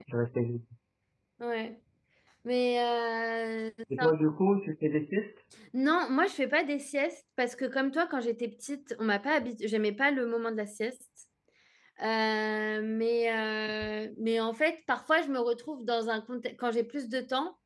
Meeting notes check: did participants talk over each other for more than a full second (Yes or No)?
No